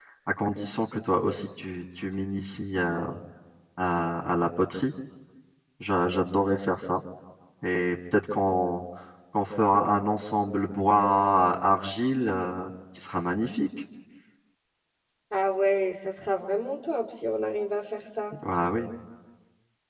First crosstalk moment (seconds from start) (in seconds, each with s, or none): none